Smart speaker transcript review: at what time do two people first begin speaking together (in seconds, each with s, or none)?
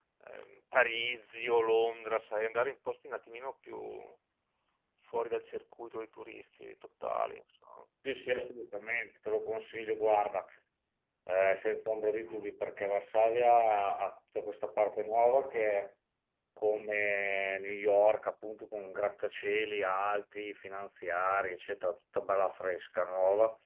none